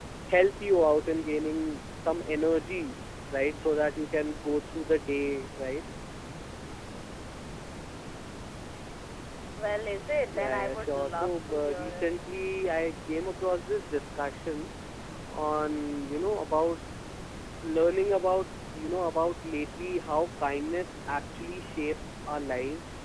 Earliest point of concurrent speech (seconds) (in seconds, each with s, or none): 10.3 s